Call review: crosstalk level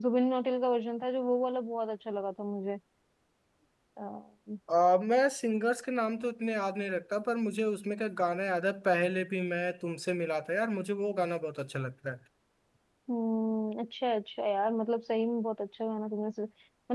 none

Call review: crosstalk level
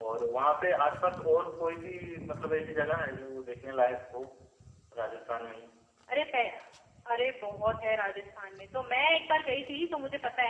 none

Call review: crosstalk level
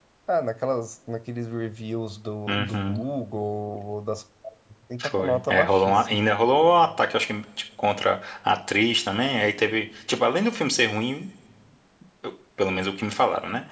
present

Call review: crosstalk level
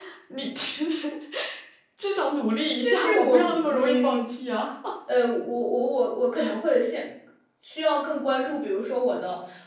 present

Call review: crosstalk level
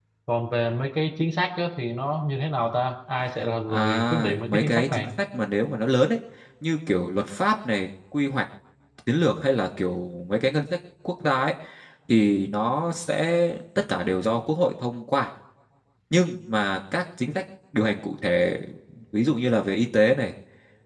present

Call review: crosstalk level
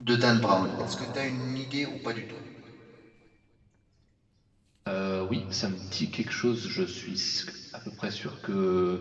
none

